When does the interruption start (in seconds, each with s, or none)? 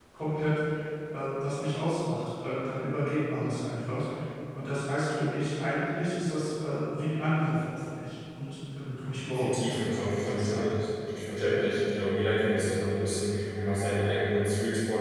9.3 s